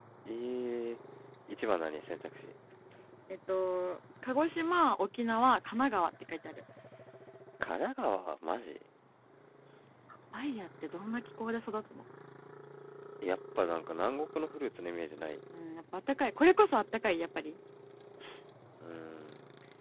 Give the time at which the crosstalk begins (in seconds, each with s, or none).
none